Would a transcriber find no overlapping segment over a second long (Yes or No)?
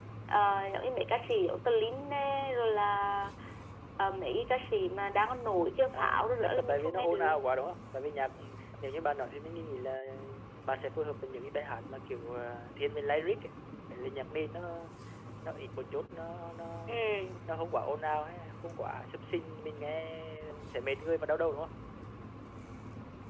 No